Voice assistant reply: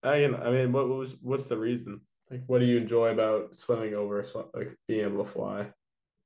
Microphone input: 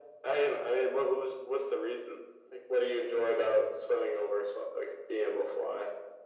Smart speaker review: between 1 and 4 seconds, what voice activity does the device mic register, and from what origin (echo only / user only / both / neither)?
echo only